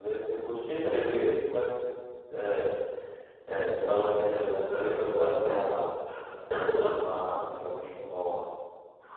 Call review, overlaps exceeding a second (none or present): present